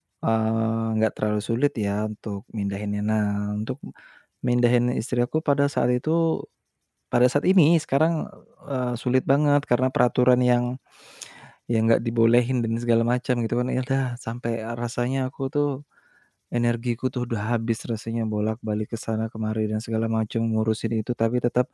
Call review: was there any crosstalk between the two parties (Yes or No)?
No